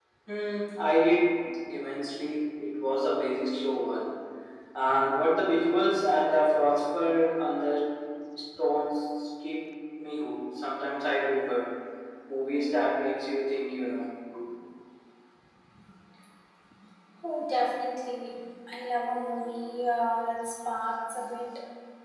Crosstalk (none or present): none